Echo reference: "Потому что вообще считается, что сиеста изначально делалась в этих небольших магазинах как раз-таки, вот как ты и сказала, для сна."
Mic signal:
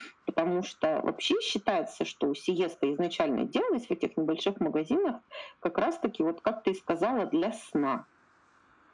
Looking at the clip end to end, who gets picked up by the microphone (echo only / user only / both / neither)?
echo only